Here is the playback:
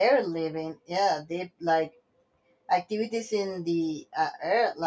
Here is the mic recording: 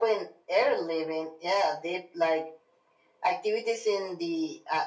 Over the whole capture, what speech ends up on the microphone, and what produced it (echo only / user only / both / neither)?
echo only